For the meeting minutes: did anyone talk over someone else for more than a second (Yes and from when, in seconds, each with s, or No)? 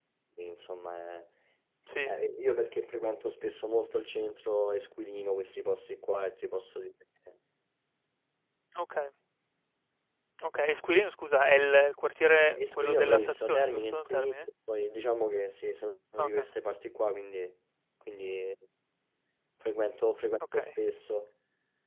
Yes, from 12.6 s